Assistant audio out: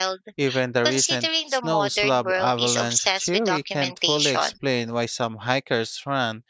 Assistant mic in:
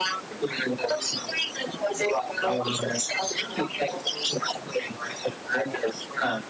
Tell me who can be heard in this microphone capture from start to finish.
echo only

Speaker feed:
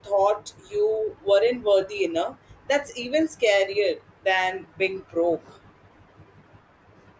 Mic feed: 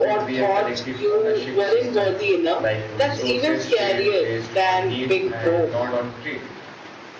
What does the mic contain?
both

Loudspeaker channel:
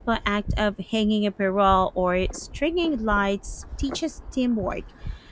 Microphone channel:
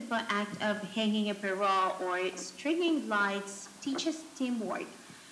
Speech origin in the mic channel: echo only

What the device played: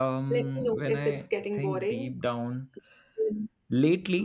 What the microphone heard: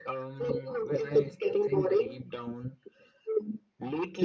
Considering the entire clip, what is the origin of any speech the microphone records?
echo only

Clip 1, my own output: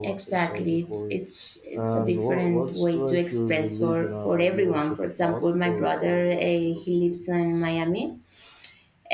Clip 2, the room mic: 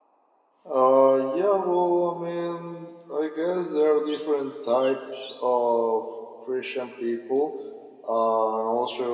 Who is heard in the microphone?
user only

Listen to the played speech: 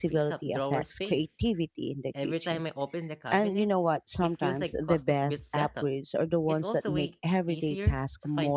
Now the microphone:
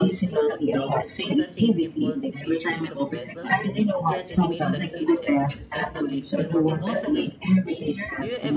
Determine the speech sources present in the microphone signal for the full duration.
both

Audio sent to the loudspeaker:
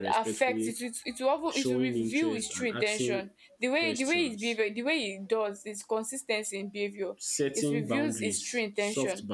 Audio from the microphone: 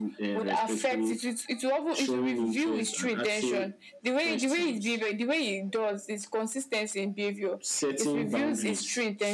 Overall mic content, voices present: echo only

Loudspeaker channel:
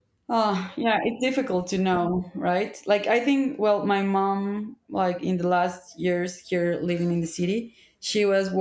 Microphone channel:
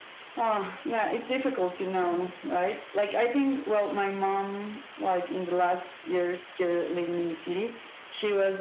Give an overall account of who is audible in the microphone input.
echo only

